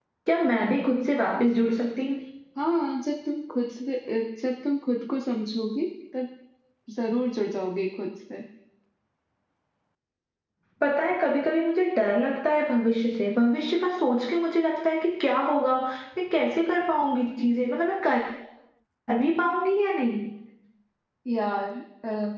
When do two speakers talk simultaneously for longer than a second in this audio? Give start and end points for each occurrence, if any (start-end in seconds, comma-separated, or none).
none